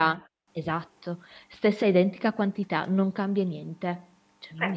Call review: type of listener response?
taking over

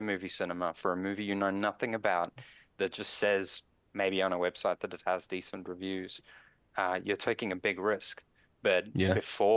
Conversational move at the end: listening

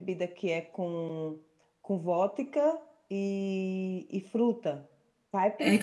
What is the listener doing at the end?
taking over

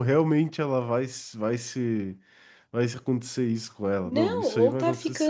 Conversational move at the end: taking over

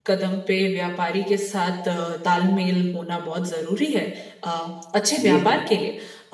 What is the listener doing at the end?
listening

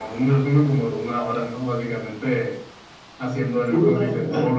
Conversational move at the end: listening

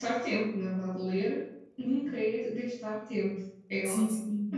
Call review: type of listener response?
taking over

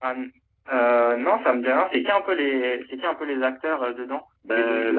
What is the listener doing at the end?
taking over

